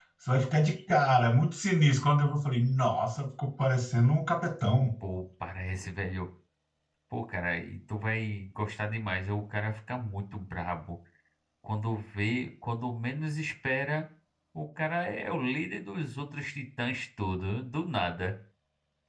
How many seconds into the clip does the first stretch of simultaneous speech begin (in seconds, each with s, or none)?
none